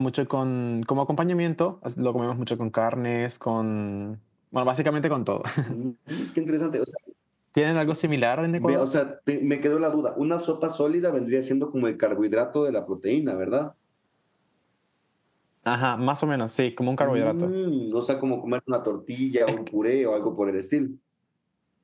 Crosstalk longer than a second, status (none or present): none